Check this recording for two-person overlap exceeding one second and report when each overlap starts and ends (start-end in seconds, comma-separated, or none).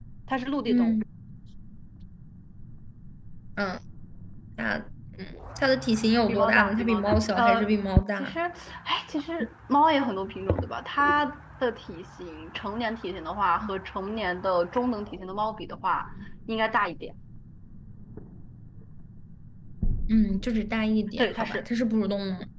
6.3-8.4